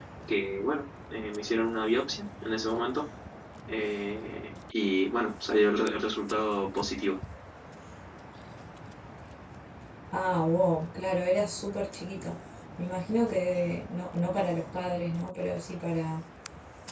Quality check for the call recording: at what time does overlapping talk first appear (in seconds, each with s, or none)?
none